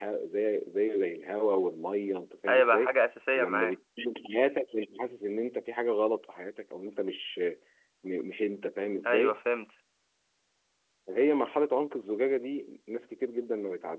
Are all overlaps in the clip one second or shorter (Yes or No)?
Yes